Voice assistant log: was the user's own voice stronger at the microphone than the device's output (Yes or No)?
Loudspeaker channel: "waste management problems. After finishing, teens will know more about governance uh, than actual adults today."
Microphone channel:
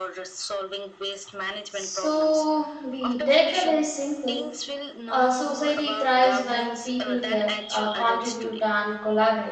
Yes